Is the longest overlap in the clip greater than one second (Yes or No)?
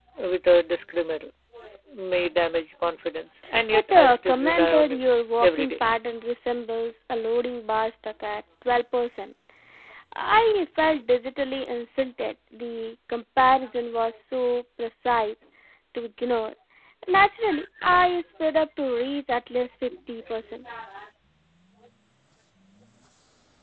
Yes